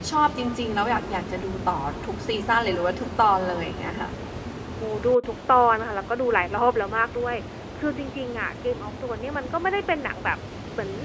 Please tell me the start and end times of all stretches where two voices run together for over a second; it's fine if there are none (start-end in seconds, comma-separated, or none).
none